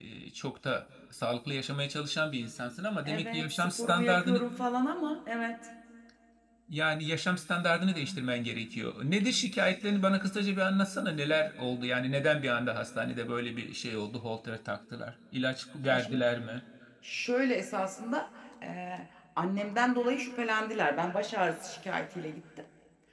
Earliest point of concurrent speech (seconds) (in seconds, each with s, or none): 3.0 s